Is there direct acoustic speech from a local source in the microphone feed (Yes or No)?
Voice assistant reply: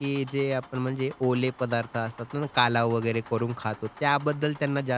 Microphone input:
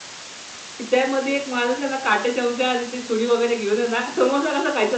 Yes